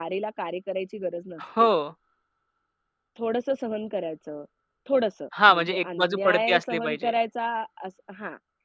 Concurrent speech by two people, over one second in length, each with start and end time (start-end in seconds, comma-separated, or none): 5.5-7.1